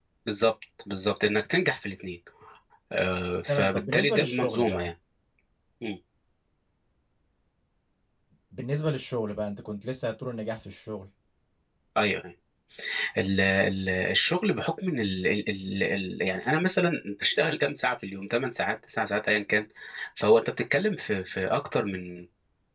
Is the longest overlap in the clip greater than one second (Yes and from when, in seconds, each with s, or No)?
Yes, from 3.5 s